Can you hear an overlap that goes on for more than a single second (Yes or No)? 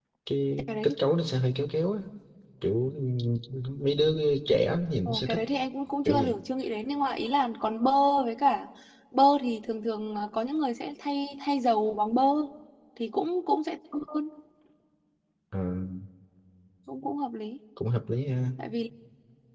No